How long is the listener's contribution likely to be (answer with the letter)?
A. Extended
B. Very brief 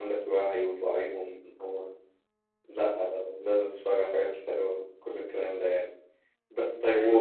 B